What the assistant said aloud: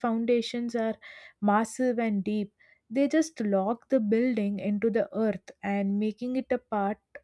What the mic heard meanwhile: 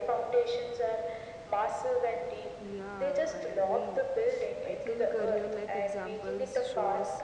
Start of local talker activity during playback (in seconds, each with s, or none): 2.6 s